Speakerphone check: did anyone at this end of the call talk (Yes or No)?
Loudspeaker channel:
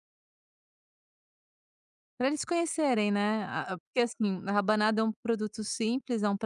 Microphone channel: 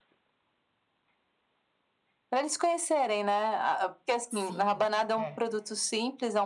Yes